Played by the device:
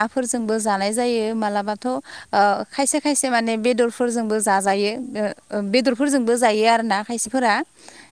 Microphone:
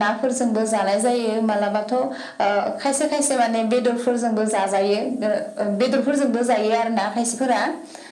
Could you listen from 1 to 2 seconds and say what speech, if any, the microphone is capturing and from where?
echo only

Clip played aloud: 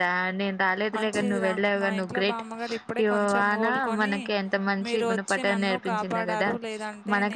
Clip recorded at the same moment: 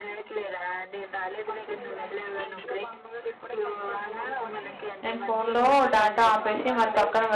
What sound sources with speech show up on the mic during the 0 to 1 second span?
echo only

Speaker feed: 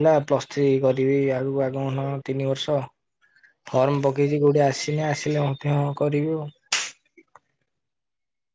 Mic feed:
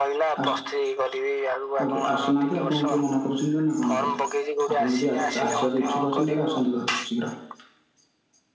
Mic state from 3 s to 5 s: both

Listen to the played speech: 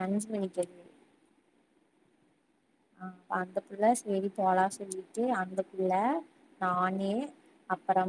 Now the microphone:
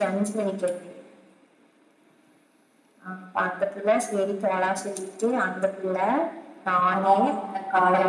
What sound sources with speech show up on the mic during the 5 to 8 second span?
both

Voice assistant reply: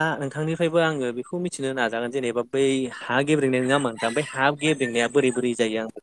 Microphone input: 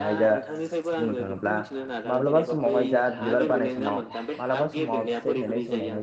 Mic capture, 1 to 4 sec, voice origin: both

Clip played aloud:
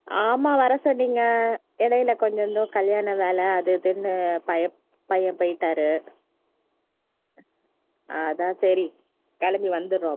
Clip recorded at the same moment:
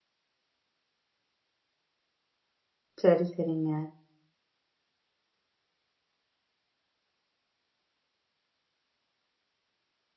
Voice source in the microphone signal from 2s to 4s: user only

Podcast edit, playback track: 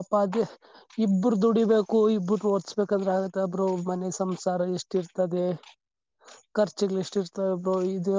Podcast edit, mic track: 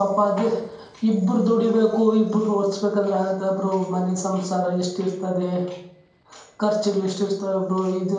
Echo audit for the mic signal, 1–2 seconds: echo only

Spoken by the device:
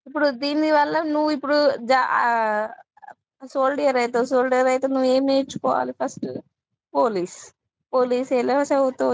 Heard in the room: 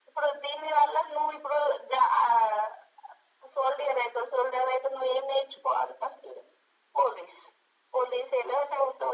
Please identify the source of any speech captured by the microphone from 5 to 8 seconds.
echo only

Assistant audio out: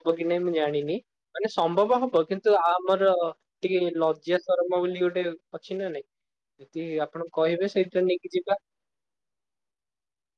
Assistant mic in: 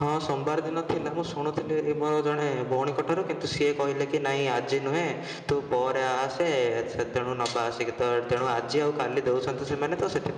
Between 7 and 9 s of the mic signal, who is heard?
user only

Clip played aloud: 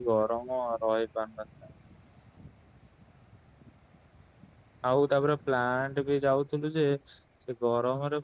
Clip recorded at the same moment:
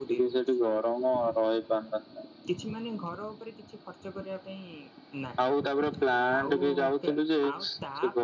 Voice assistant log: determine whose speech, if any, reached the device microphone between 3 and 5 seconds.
user only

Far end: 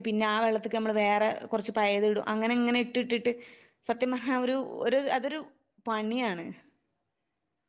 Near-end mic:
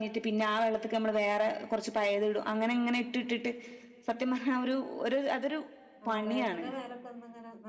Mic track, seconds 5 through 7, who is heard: both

